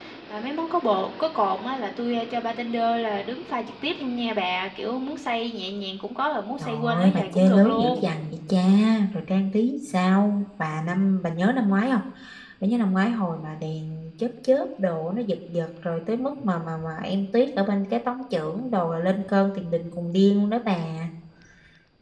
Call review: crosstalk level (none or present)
present